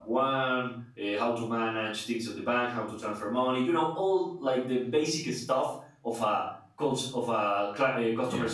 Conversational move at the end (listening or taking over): listening